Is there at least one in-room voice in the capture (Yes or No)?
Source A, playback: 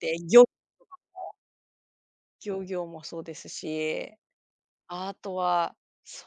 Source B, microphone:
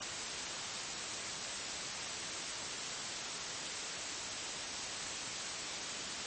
No